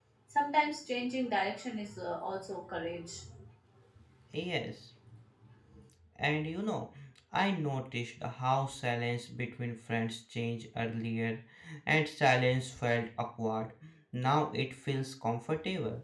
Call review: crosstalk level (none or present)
none